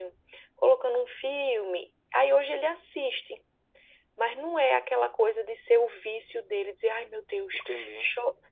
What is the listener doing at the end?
listening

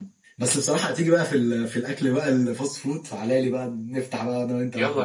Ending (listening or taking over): taking over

